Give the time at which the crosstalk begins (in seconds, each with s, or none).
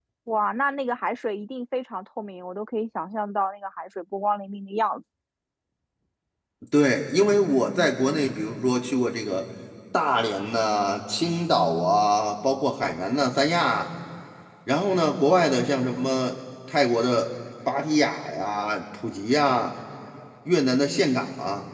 none